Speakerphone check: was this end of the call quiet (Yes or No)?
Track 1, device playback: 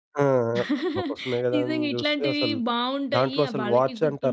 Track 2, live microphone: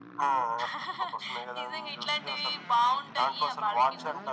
Yes